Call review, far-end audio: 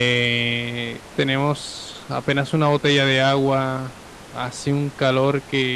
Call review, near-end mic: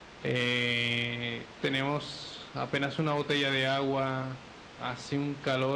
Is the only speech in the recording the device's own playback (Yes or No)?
Yes